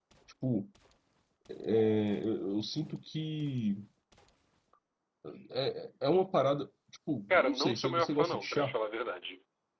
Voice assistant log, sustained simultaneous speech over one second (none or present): present